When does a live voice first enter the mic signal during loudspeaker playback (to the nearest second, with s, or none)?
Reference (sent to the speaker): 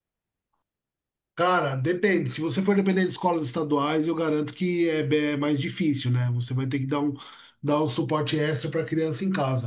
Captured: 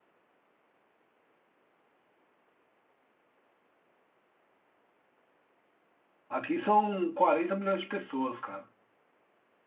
6 s